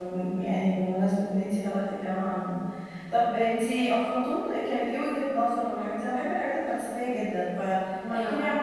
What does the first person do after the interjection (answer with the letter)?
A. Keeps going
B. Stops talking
A